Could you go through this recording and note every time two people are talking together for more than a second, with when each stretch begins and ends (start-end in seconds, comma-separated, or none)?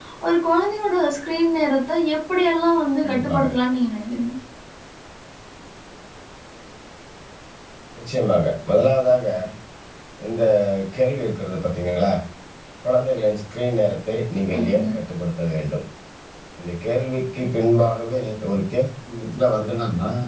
none